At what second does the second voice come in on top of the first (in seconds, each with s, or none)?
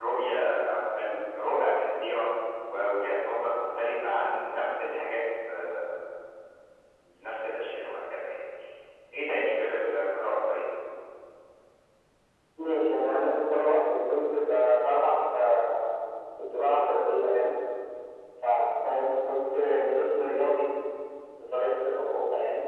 none